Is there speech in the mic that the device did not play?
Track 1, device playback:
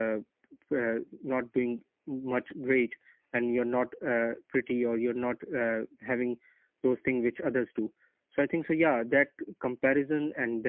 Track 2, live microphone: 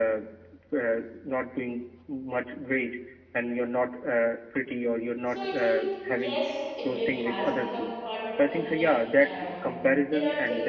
Yes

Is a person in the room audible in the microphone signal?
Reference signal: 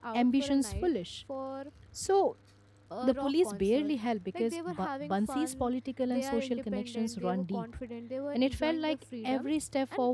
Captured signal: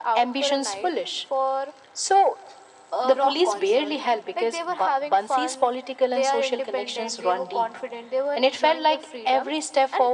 No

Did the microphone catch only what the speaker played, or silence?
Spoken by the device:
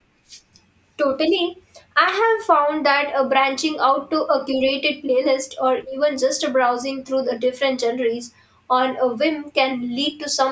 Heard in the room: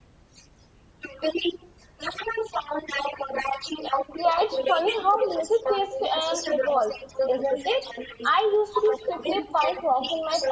No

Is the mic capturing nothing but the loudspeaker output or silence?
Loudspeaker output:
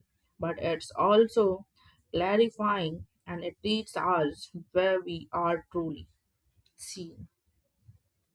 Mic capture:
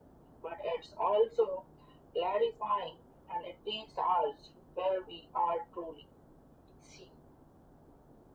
Yes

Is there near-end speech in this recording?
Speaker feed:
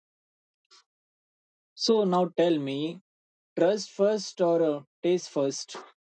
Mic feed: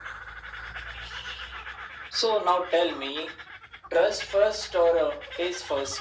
No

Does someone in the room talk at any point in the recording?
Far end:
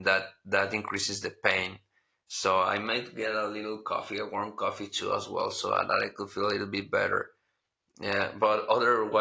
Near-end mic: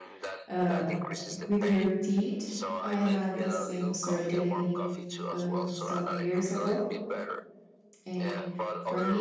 Yes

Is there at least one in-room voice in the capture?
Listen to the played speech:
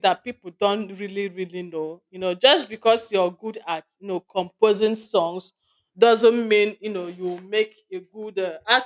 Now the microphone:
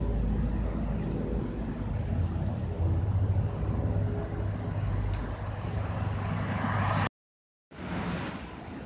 No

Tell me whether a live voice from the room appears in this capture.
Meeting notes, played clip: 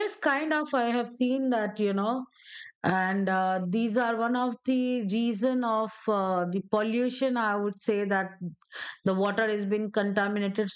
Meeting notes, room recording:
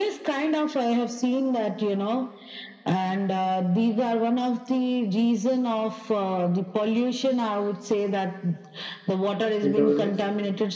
Yes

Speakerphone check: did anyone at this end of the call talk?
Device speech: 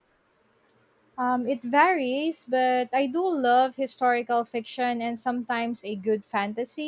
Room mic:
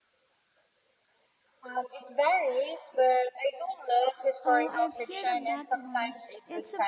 Yes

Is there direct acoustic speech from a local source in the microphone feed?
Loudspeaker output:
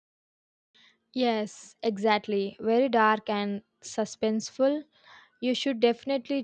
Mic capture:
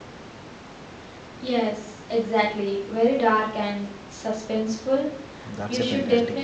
Yes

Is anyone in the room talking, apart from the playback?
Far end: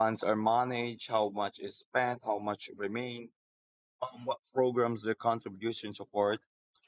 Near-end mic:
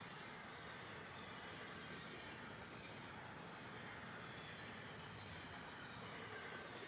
No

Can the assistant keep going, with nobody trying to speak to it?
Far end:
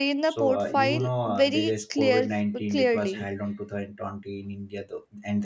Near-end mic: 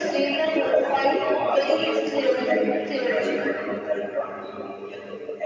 Yes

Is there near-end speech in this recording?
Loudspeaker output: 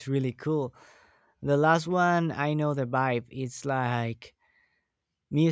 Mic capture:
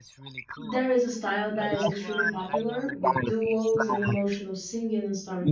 Yes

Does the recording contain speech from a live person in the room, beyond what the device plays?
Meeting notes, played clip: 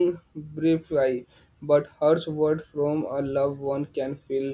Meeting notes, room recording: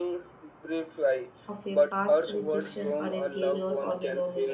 Yes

